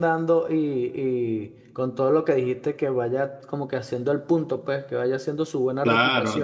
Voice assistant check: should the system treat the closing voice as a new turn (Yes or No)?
Yes